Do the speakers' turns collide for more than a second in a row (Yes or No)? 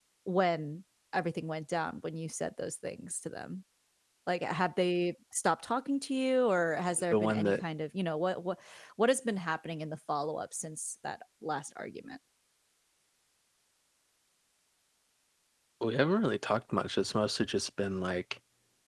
No